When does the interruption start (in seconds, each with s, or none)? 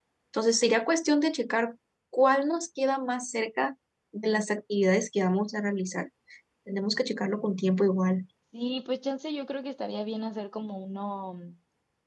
none